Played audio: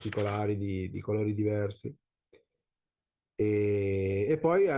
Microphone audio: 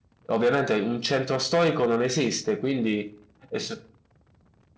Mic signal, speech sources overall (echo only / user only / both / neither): user only